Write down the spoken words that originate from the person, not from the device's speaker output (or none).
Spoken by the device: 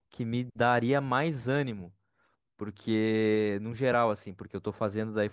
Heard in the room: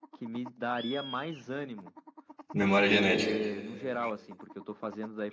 Memória genética.